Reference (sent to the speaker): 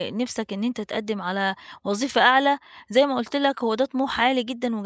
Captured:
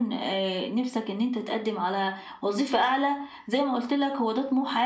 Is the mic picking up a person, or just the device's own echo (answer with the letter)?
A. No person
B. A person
A